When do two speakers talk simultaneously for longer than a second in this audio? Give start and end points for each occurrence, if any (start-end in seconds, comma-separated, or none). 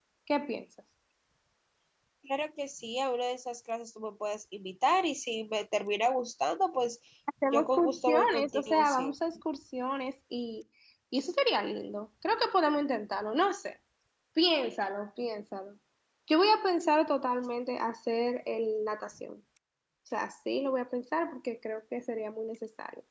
7.5-9.1